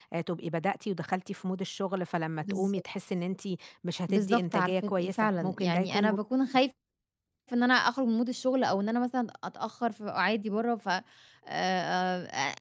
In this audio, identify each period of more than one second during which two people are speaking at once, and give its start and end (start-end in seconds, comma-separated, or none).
4.1-6.2